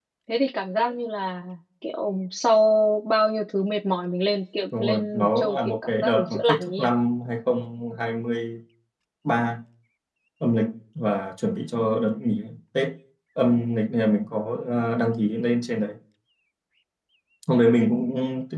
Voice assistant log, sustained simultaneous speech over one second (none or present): present